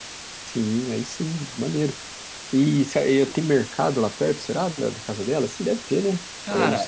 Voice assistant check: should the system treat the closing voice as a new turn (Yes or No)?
Yes